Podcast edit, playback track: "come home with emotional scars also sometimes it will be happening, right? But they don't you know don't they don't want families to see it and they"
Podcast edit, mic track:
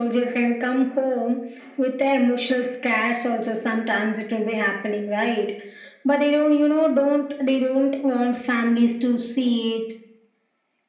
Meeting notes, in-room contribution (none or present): none